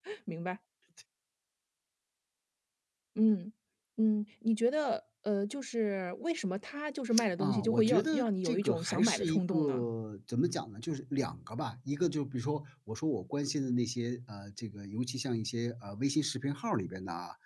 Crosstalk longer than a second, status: present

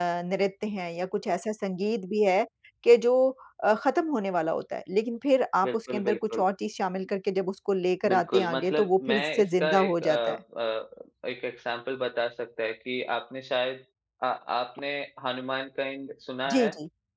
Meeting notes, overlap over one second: present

